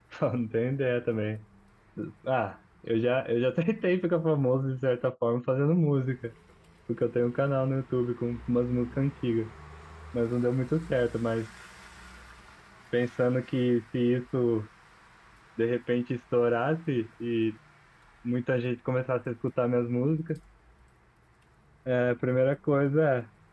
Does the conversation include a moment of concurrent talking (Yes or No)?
No